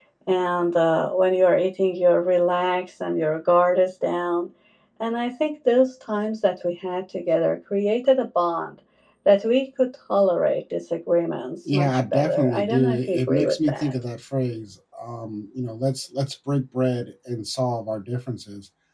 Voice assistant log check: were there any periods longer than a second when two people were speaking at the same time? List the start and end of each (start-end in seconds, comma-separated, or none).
11.7-13.9